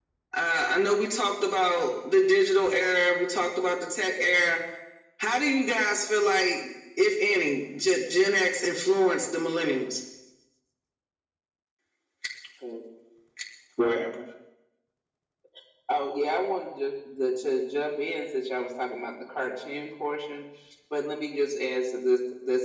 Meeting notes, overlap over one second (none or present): none